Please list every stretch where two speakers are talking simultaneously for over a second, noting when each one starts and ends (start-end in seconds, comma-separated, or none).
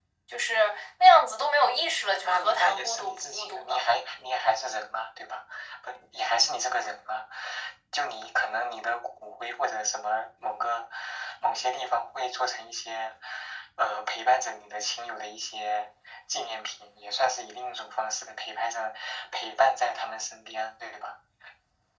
2.2-3.8